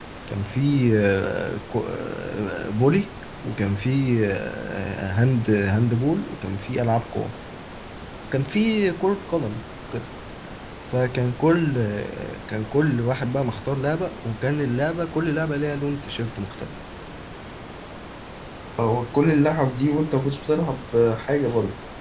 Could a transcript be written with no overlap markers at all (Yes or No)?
Yes